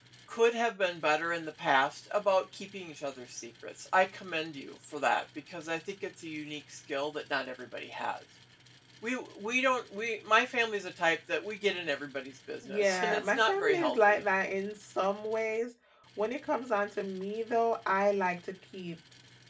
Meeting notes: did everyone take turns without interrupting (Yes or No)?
No